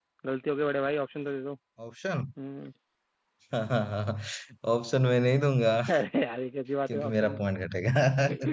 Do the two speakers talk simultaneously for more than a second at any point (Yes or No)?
No